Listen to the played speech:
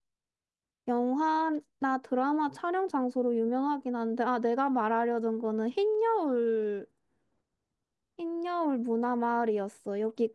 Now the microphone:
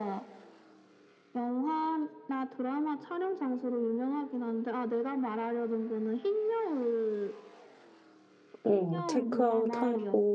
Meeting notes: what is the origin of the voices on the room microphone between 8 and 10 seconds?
both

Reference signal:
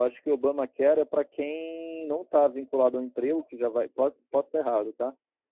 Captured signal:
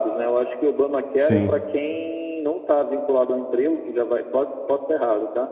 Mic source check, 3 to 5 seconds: echo only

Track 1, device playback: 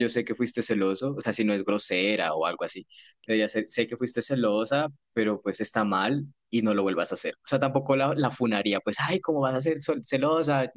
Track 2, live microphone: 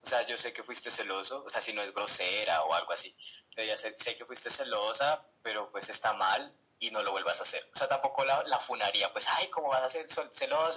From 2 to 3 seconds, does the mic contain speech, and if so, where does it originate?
echo only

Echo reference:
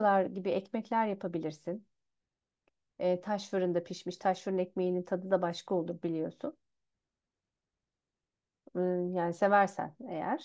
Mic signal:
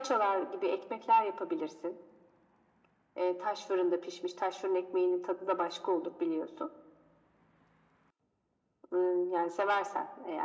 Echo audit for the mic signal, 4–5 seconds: echo only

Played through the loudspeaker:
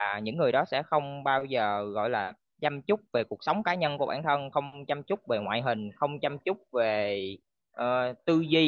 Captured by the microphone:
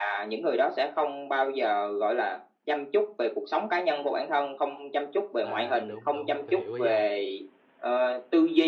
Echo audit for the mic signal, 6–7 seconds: both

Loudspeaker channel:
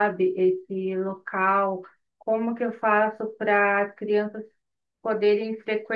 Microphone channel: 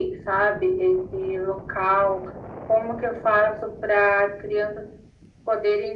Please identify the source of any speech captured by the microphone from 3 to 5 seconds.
echo only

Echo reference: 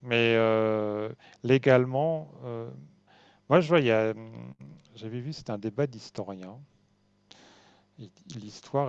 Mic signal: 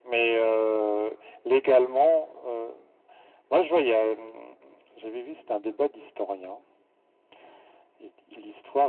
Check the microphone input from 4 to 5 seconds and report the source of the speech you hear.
echo only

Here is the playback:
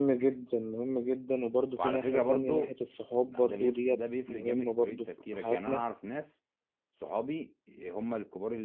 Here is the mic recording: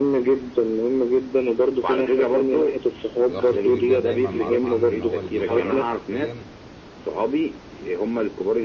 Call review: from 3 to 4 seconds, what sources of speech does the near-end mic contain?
both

